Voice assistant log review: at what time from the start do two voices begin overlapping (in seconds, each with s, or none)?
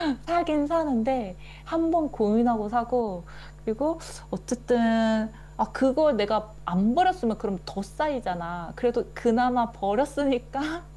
none